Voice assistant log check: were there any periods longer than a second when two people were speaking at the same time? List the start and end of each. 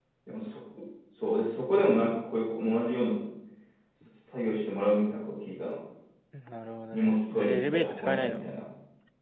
6.9-8.5

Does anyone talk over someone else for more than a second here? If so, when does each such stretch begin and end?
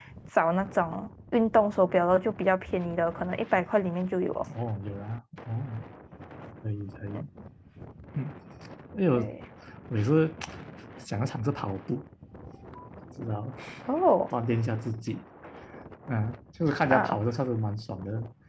none

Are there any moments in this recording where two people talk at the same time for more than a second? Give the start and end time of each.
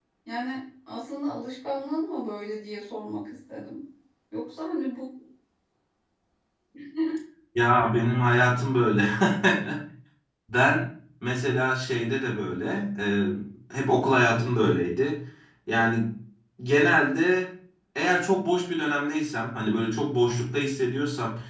none

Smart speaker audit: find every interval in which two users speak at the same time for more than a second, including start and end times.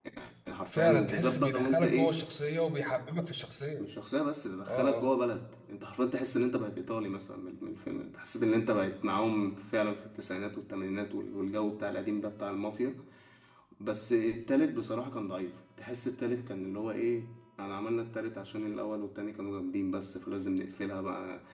0.7-2.1

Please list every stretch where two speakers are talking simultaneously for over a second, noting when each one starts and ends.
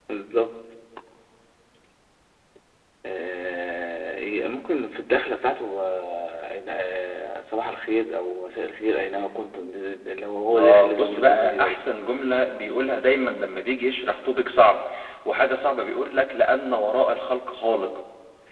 10.5-11.8

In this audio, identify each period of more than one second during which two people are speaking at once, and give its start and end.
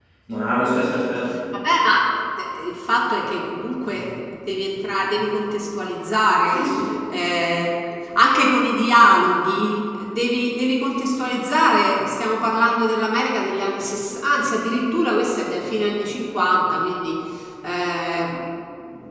none

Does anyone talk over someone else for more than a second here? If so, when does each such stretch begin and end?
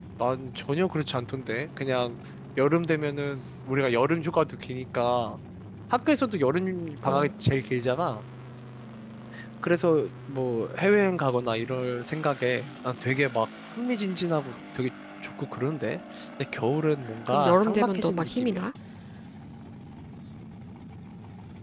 17.3-18.7

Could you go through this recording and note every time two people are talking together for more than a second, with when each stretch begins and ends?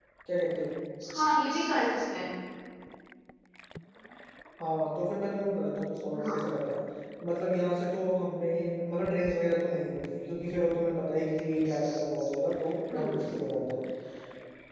none

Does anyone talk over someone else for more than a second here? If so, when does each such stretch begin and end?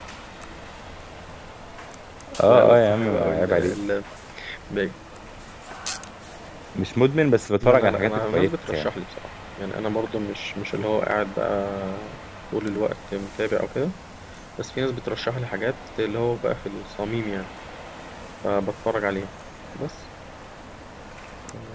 2.5-3.7, 7.6-8.9

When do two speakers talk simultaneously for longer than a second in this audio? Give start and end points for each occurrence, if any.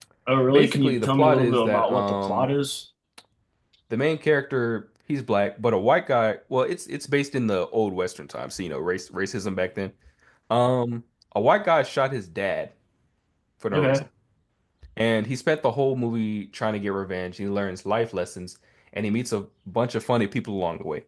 0.5-2.5

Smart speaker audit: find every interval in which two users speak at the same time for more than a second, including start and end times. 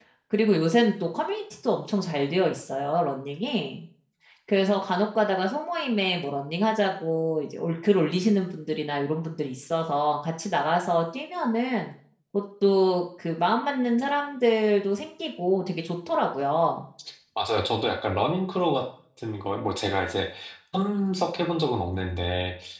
none

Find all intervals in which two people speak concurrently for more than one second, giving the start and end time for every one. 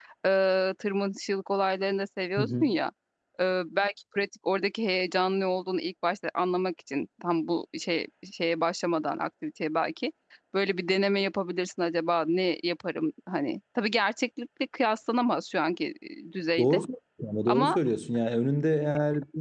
none

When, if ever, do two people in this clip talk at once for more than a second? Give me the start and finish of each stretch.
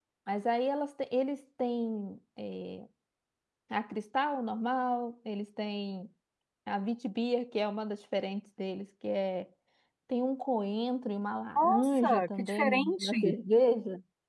11.6-13.3

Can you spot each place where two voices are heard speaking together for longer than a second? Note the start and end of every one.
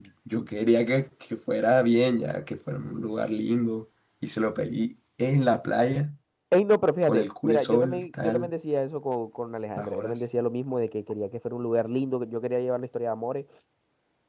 7.0-8.5

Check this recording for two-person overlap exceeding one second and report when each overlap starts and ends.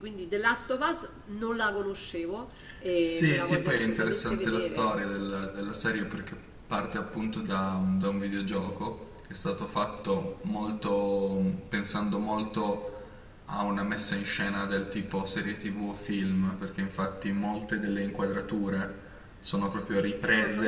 3.1-4.9

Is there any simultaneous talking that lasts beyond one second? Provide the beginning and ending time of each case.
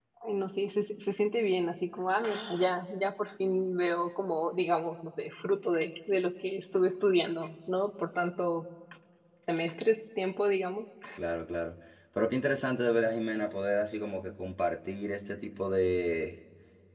none

